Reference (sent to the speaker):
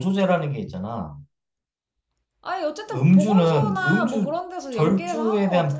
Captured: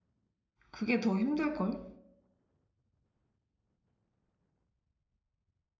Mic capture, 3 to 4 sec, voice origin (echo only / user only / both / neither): neither